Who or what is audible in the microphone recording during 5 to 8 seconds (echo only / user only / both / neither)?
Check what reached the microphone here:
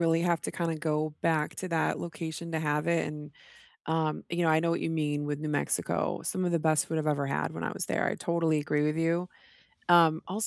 user only